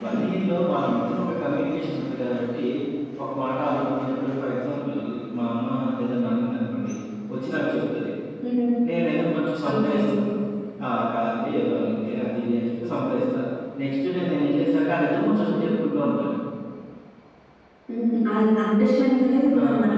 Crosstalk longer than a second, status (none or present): none